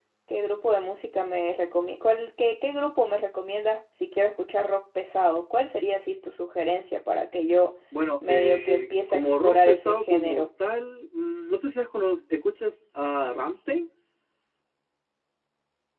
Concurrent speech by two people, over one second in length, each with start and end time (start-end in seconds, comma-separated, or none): 8.3-10.4